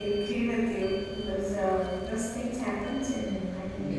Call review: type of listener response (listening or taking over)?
taking over